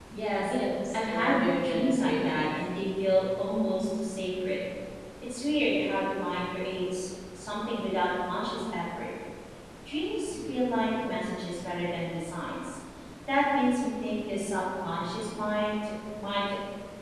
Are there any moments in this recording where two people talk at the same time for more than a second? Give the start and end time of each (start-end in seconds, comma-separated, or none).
0.9-2.5